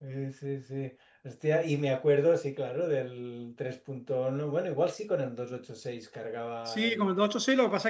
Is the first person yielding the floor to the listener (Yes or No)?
Yes